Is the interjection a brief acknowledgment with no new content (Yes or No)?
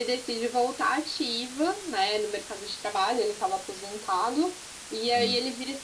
Yes